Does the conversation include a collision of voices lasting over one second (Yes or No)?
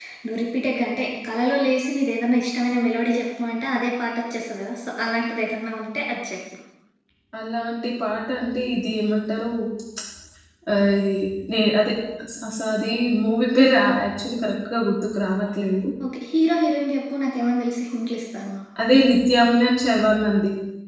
No